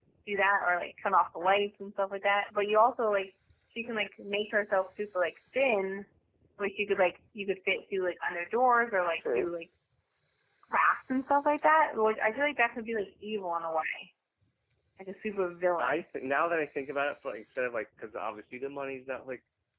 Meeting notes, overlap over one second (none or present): none